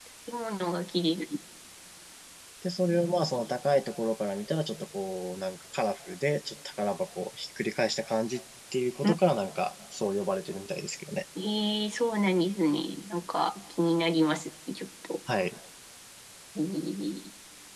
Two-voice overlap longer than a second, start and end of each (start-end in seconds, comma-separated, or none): none